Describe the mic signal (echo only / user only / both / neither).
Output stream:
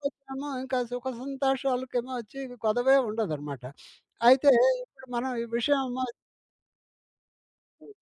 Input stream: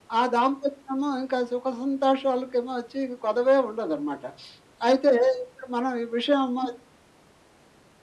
echo only